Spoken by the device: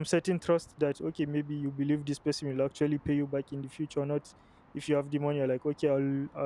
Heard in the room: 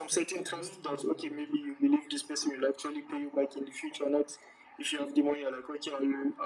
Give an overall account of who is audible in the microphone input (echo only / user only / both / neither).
both